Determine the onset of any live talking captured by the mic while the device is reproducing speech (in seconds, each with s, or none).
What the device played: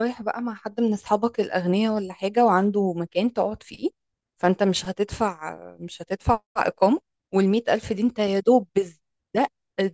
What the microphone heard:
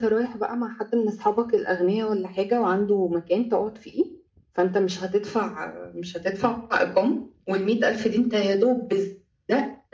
none